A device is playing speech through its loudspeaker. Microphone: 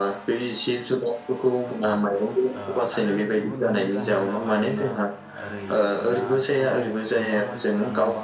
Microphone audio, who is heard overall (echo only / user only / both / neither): both